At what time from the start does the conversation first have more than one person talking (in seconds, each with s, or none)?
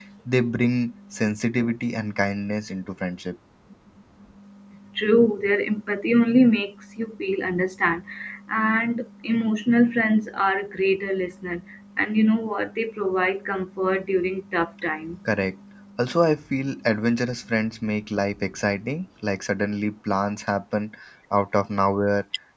none